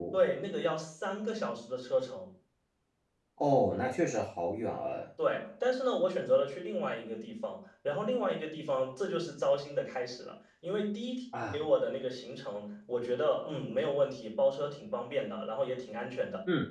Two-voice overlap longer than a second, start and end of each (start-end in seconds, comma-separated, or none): none